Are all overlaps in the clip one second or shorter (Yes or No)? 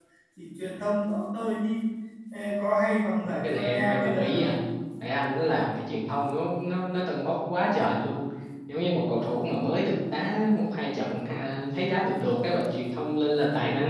No